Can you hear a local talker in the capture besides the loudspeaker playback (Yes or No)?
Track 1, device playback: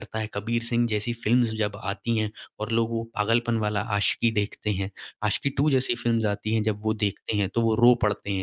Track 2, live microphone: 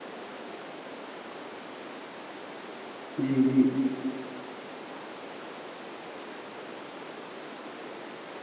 Yes